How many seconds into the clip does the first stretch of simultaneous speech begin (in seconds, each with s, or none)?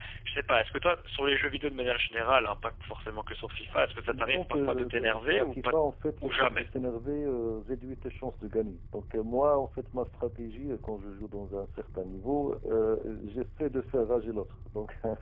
4.1 s